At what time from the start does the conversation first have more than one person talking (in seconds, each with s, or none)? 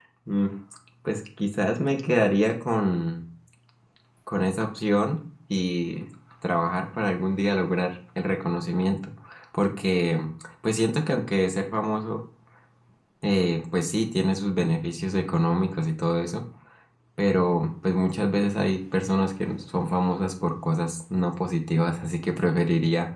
none